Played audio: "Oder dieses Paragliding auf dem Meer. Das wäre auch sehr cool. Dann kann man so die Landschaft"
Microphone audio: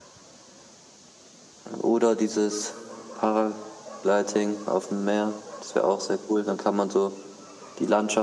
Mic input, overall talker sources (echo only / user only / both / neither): echo only